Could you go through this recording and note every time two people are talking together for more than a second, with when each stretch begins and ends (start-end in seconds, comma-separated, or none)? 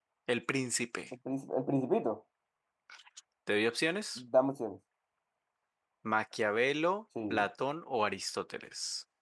none